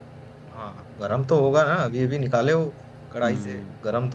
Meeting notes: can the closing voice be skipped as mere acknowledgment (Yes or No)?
No